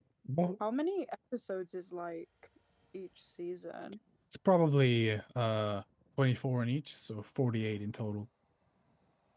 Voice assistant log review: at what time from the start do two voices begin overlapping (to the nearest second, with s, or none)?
none